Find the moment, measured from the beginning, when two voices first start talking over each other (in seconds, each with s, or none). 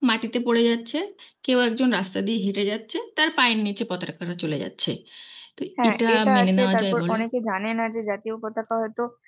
5.8 s